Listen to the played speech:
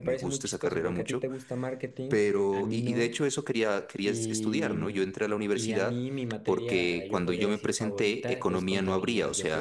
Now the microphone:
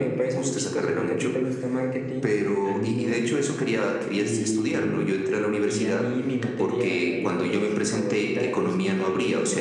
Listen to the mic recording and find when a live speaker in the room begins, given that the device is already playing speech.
none

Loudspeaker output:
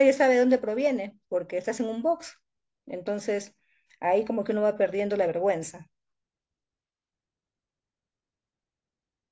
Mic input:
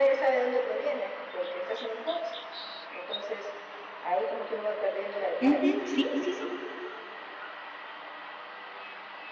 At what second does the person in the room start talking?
5.4 s

